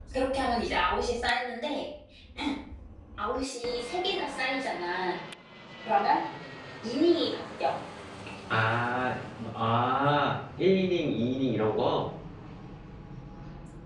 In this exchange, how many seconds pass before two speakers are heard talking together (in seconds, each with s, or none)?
none